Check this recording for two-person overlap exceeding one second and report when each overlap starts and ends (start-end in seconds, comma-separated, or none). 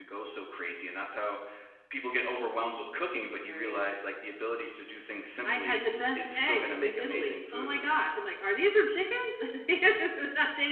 5.4-7.8